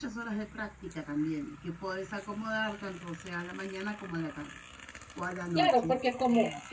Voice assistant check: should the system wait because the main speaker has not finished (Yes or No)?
No